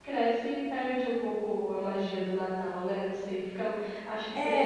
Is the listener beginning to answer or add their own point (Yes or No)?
Yes